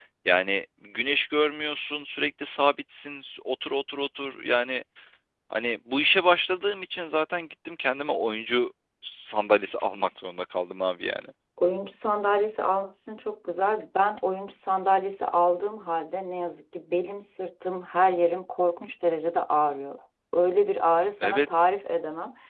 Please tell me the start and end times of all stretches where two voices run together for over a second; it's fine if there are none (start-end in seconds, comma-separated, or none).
none